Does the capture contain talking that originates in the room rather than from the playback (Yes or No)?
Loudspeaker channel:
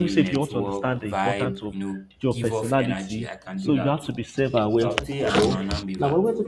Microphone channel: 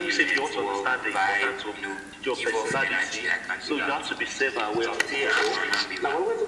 No